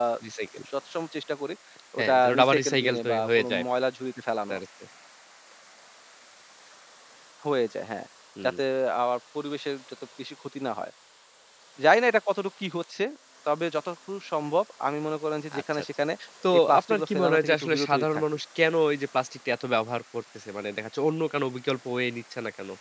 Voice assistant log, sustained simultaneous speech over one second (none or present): present